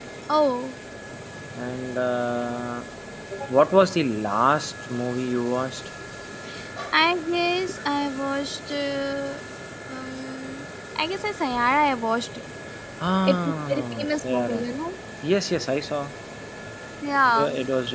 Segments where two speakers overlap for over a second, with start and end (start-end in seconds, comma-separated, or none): 13.2-14.6